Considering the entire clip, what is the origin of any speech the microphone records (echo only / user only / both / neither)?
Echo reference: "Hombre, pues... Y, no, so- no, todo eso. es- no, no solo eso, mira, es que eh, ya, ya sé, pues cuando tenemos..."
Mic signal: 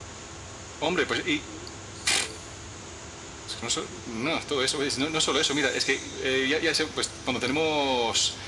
echo only